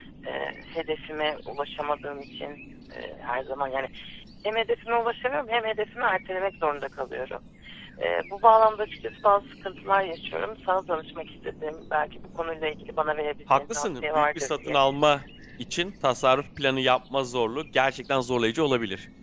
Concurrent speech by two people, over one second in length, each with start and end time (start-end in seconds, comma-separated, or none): 13.5-14.8